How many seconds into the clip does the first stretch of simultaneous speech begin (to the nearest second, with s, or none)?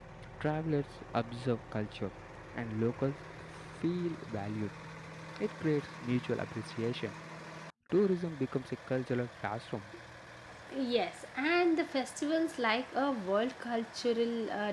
none